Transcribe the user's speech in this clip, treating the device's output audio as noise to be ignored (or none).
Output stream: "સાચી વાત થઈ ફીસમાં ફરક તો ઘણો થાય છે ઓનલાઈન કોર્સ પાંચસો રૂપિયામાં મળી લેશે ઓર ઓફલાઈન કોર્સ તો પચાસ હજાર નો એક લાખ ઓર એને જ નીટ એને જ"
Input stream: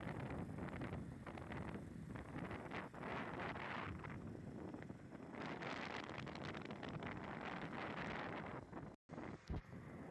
none